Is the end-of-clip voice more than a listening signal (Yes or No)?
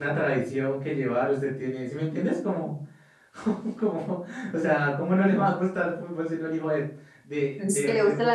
Yes